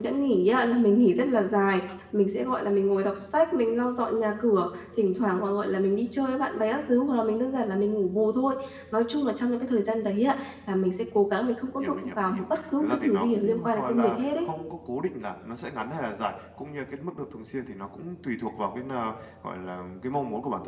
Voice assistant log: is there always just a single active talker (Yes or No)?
No